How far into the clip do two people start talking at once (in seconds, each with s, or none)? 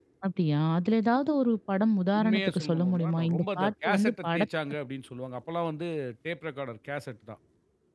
2.1 s